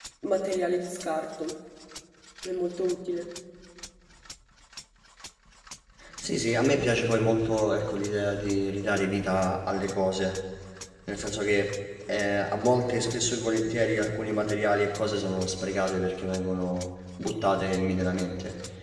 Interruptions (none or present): none